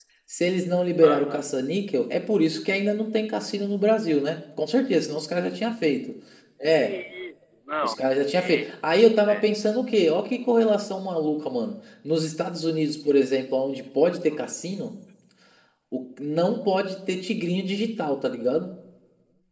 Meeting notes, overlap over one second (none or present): none